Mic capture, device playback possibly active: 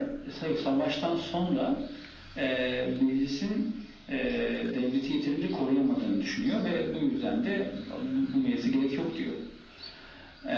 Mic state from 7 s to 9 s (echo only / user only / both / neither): echo only